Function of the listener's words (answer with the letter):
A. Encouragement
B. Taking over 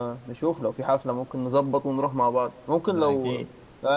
A